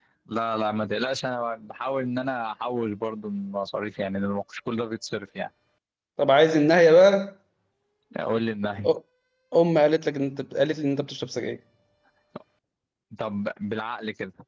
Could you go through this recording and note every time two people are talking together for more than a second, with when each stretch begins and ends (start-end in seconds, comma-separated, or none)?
none